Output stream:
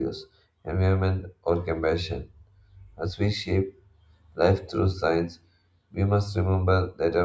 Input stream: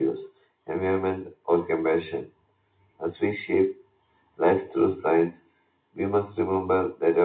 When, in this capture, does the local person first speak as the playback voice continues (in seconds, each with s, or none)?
none